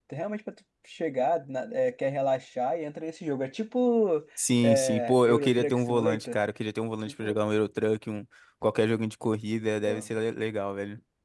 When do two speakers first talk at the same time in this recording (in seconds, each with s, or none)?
4.6 s